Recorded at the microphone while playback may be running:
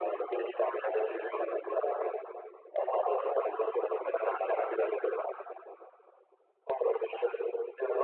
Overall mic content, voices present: echo only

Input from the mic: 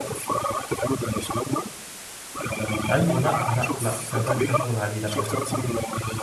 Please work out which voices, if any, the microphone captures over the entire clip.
both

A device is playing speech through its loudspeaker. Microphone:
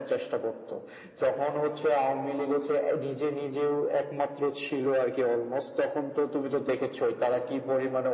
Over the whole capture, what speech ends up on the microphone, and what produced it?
echo only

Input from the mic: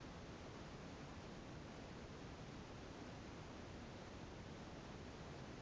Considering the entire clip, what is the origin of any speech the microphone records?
neither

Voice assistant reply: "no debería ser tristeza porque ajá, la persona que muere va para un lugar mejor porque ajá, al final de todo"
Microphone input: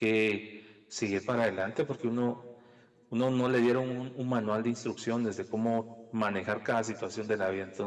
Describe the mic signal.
user only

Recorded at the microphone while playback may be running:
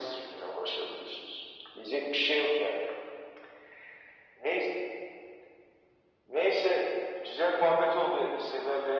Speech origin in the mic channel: echo only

